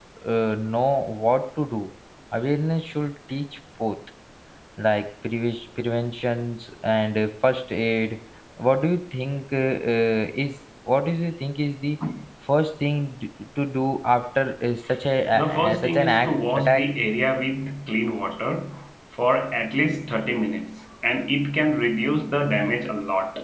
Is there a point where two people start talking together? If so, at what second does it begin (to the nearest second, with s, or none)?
15 s